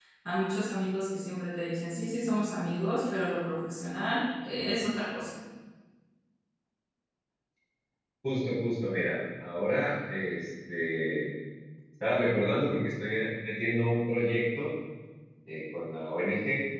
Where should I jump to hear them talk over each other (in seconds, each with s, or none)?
none